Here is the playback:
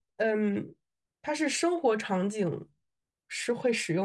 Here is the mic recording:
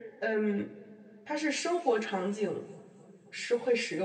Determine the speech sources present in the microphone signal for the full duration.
echo only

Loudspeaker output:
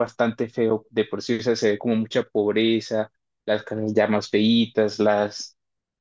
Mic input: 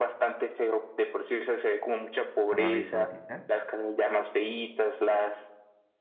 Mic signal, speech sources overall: both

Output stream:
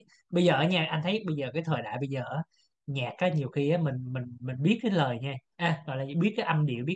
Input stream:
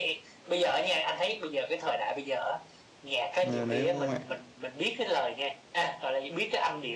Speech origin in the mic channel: both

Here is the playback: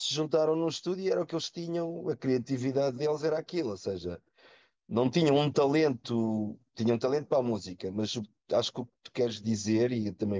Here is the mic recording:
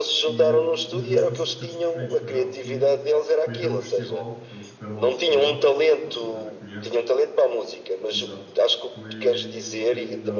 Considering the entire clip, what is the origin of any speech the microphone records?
both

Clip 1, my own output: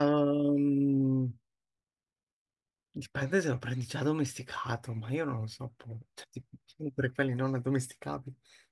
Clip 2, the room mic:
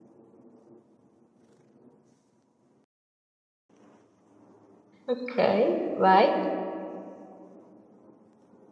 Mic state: user only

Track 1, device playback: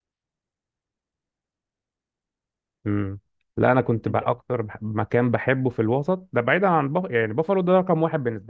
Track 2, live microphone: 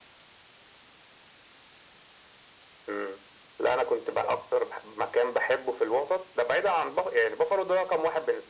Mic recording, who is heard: echo only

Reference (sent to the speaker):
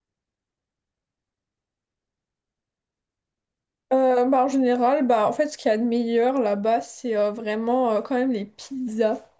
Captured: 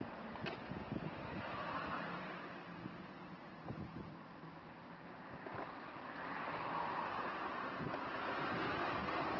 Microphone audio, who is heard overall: neither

